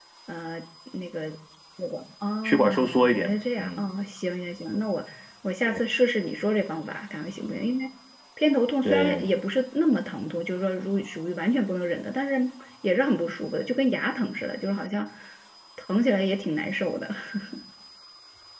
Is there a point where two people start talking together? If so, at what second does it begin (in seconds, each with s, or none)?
2.4 s